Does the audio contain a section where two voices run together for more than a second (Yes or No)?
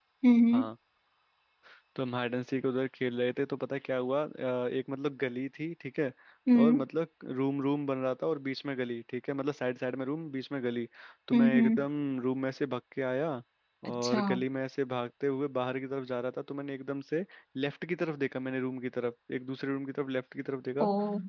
No